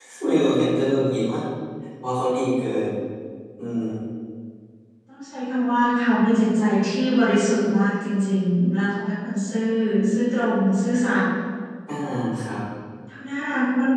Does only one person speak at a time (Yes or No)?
Yes